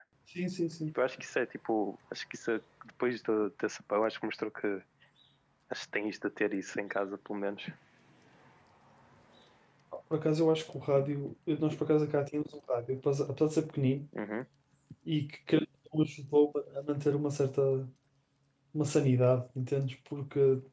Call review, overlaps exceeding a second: none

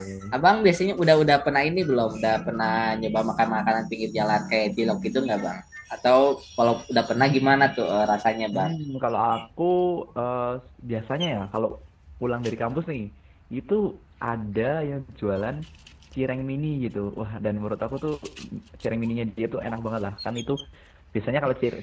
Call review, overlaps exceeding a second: none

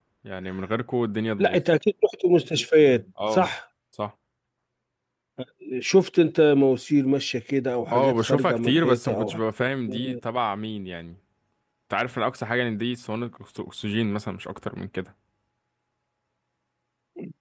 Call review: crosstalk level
present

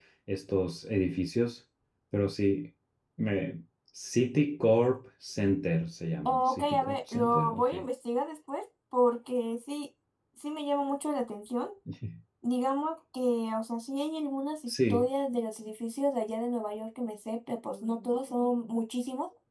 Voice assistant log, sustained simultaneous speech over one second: present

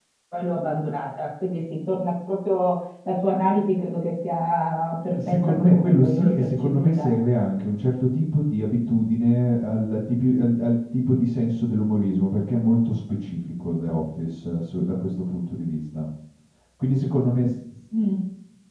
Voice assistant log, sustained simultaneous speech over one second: present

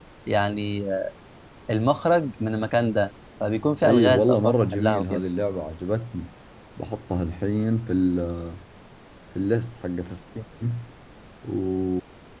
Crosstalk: present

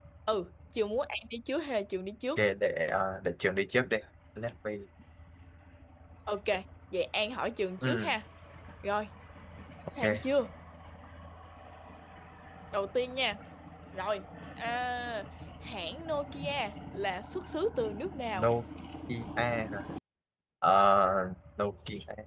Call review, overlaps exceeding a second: none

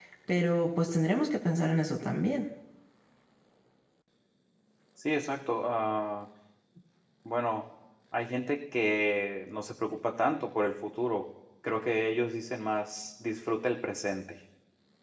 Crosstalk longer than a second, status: none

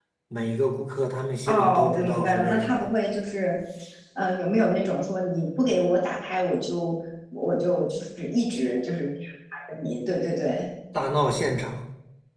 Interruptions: present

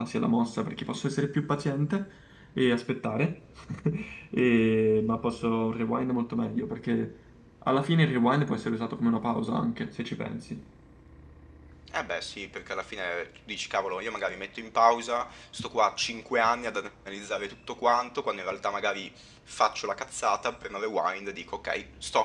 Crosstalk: none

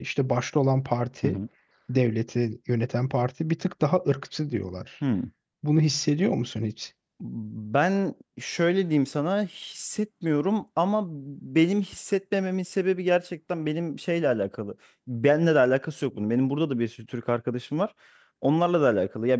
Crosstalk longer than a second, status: none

